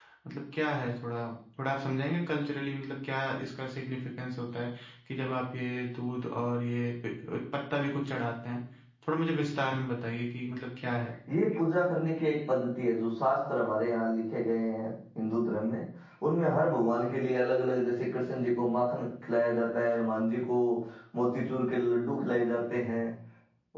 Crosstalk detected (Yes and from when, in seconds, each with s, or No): No